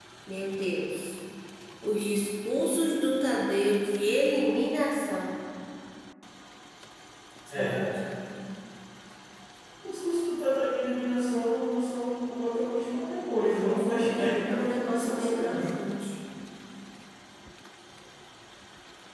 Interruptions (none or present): present